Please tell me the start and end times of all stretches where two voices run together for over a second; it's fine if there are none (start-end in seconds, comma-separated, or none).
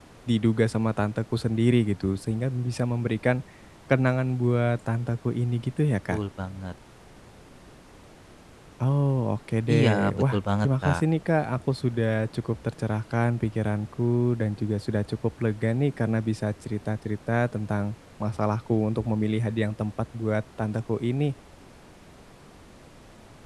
9.8-11.0